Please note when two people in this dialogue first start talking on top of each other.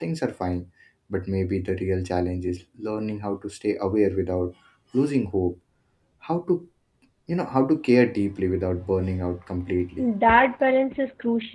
none

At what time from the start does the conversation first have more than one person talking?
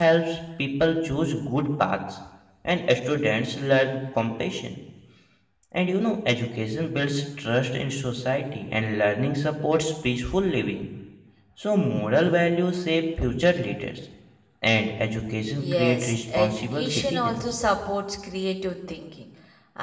15.6 s

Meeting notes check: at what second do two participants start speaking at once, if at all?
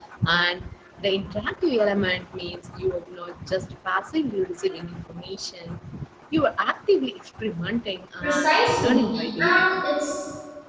8.2 s

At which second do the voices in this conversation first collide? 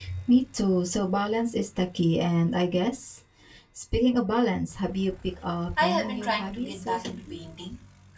5.8 s

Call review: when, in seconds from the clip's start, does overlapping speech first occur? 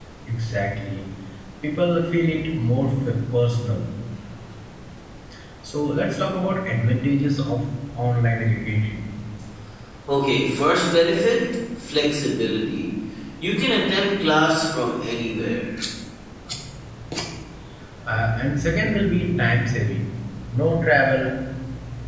none

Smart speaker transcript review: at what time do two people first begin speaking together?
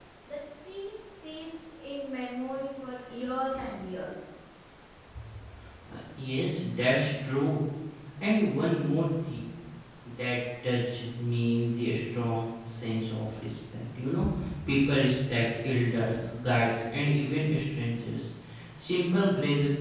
none

